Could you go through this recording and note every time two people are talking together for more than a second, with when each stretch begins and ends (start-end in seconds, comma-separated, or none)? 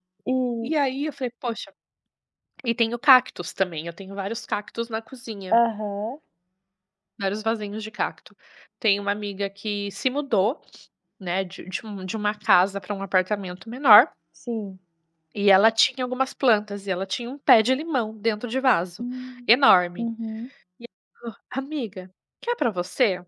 none